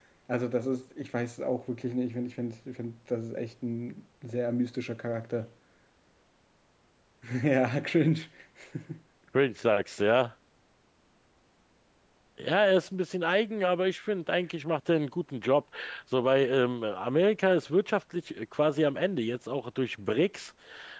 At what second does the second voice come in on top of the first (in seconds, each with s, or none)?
none